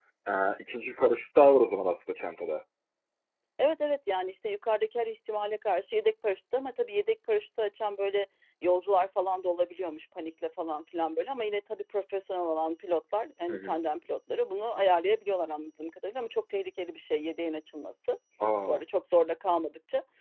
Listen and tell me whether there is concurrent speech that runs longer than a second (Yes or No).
No